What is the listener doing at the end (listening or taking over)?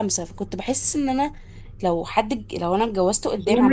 taking over